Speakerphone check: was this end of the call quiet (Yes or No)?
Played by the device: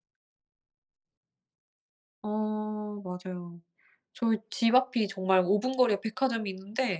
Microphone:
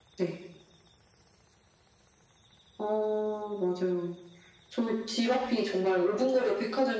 Yes